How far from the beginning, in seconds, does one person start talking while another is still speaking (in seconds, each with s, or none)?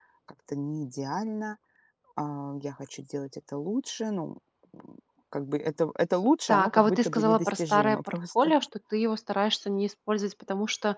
6.5 s